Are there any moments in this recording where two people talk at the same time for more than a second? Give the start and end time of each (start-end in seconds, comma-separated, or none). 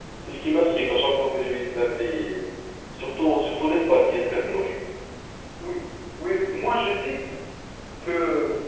none